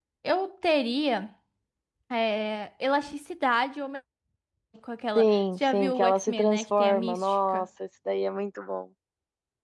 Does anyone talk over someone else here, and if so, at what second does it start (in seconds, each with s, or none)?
5.2 s